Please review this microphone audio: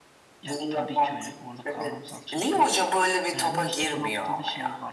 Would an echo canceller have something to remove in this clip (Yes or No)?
Yes